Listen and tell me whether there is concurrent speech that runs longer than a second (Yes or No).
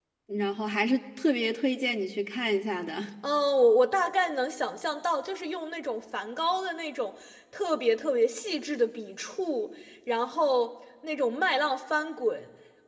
No